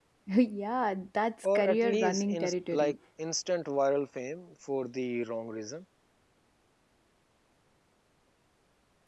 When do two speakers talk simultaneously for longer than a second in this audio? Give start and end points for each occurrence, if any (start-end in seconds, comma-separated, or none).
1.6-3.0